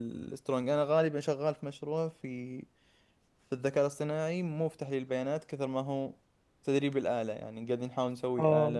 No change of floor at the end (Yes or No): No